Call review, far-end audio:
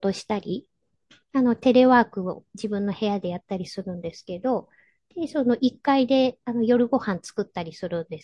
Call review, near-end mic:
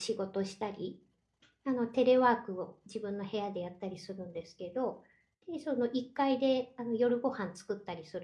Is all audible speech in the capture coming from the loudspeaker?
Yes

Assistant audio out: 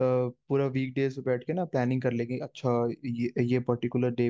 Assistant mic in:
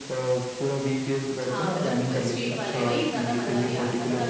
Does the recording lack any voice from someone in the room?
No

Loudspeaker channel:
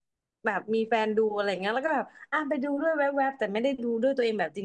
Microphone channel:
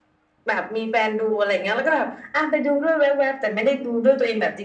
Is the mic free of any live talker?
Yes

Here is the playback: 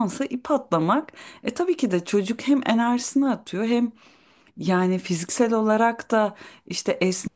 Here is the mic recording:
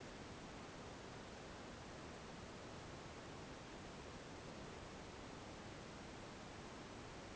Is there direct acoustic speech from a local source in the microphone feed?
No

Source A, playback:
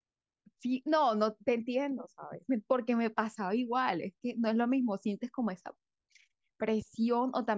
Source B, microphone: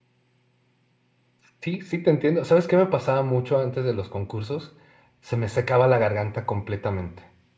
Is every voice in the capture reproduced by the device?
No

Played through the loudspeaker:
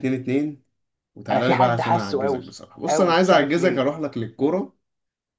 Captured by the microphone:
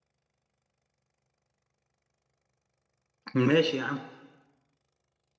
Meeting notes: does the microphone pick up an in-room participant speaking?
Yes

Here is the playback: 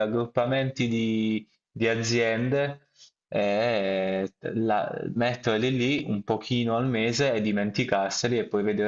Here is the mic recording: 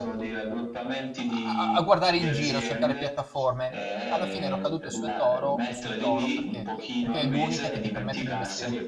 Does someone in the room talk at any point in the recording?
Yes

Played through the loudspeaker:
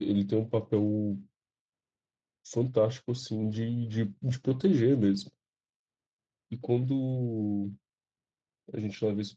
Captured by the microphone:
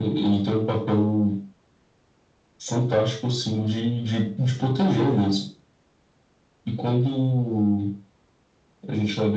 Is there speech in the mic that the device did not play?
Yes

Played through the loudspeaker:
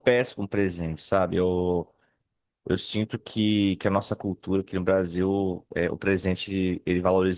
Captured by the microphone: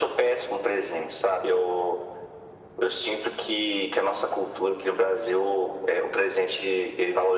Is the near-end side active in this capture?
No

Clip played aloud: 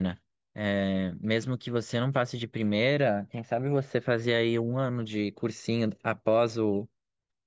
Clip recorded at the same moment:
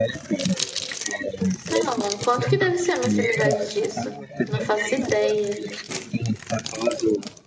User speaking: Yes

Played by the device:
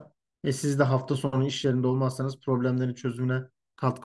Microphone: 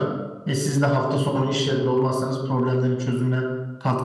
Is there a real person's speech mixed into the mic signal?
No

